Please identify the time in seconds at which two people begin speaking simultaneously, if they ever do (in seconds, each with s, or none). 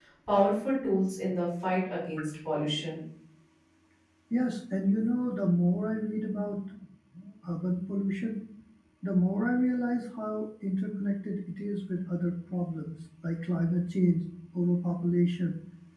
none